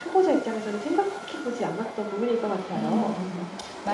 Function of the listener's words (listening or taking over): taking over